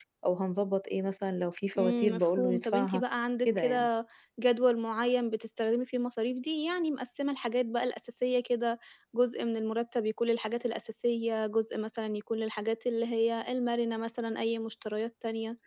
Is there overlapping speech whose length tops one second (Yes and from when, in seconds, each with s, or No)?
Yes, from 1.8 s